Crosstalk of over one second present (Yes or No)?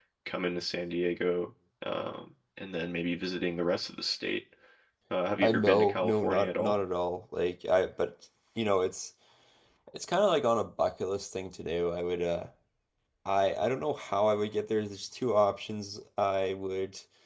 Yes